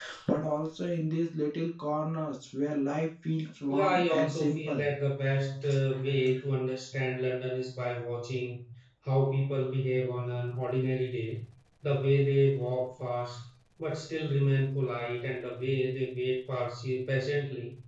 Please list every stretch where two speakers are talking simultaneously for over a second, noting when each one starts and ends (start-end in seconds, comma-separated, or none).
3.7-4.9